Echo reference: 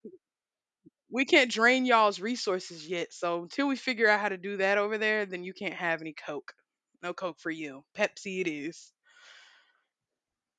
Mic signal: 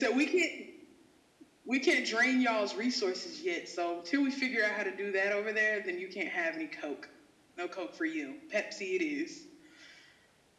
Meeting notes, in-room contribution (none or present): none